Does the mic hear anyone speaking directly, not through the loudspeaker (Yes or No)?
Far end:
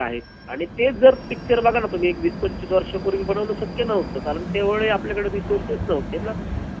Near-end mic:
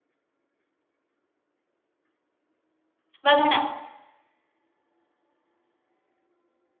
Yes